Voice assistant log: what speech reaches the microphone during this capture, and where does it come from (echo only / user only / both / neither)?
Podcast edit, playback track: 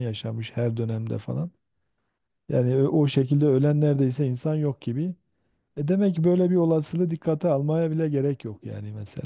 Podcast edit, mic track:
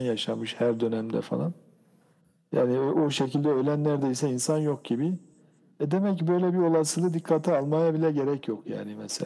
echo only